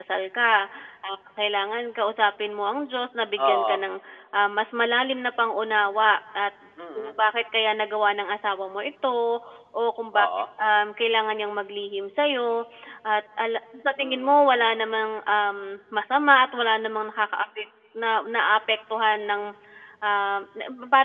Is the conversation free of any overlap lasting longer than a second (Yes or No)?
Yes